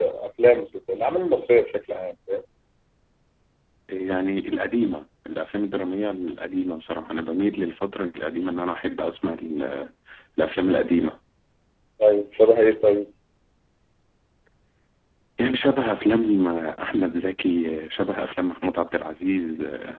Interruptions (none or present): none